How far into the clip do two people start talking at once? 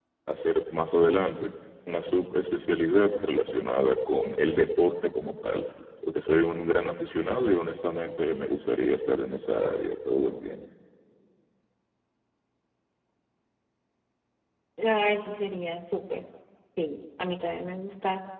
none

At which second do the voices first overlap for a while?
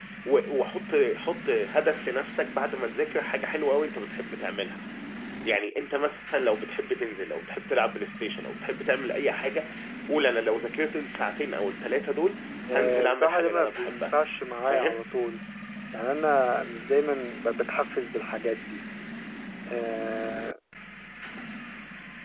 12.7 s

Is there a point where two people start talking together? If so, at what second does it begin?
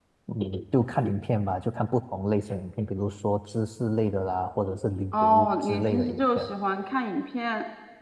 5.1 s

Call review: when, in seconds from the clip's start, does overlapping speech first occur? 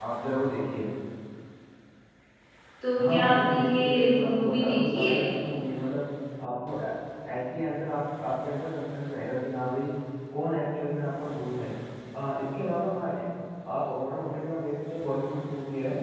3.0 s

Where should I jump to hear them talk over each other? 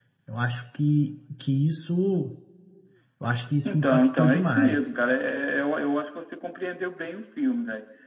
3.6 s

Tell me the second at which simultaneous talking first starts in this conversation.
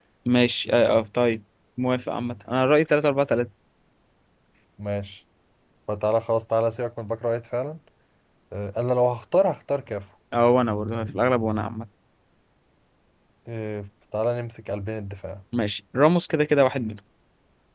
none

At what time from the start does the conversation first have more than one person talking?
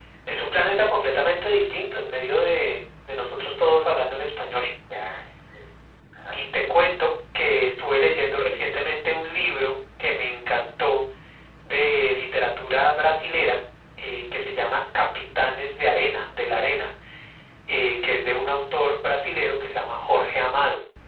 none

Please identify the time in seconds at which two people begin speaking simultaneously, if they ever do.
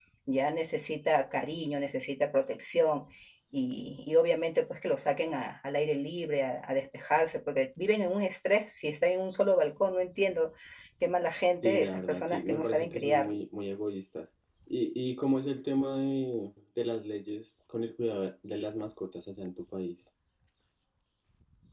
11.6 s

